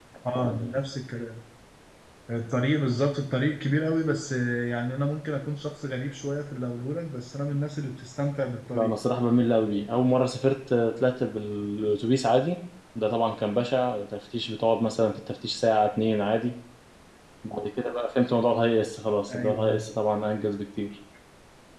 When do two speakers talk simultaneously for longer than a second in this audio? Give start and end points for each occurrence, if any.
none

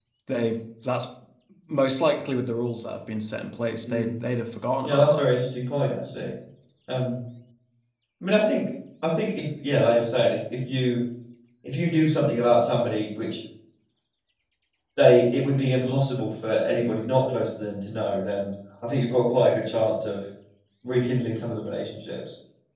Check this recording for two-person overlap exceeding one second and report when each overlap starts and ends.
none

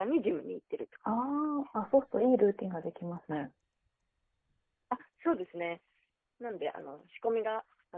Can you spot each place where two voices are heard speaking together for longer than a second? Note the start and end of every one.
none

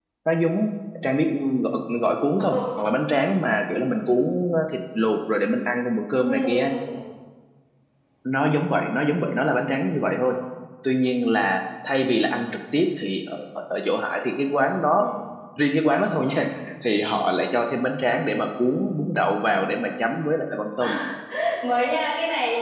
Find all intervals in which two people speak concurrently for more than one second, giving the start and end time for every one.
none

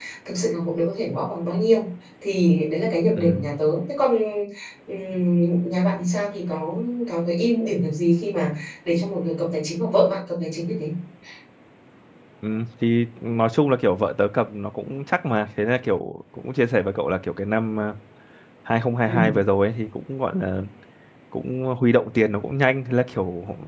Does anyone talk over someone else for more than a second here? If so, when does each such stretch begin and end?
none

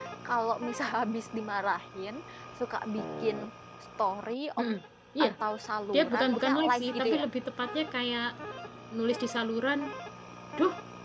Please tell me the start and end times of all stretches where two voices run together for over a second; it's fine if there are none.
5.9-7.2

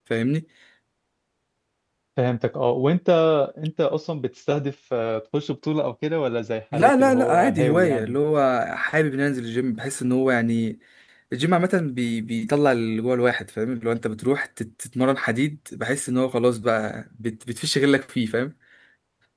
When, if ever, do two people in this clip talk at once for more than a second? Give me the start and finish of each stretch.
6.7-8.2

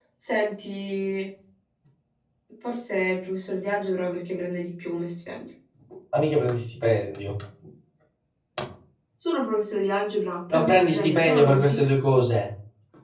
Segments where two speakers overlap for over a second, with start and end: 10.5-11.9

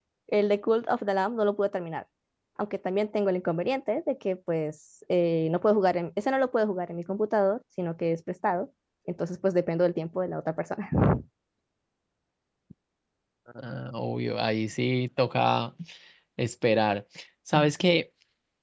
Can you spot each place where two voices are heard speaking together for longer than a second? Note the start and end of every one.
none

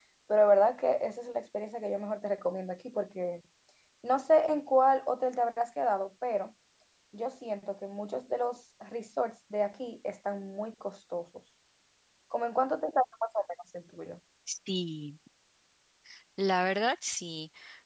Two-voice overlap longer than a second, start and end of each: none

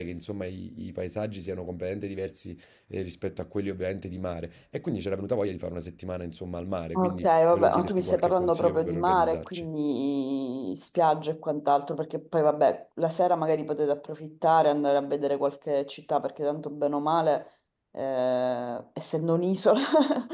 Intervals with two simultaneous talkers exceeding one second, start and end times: 7.0-9.7

